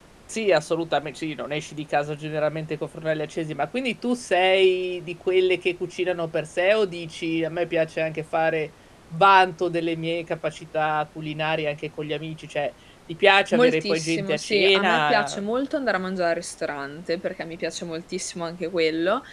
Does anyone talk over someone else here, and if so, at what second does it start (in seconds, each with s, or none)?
13.5 s